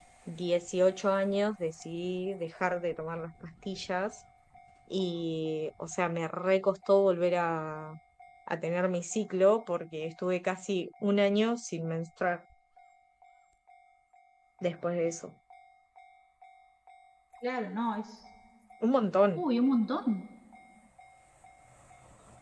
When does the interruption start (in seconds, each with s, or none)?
none